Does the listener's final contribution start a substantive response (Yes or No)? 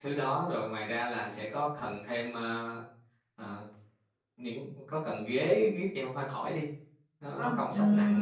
Yes